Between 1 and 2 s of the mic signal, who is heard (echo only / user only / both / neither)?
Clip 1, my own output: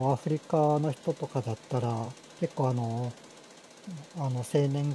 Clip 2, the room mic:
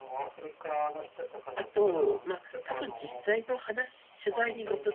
both